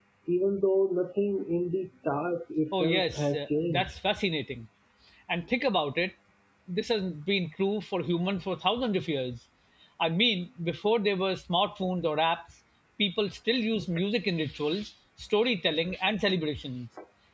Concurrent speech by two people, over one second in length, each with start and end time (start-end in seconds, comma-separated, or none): 2.7-4.0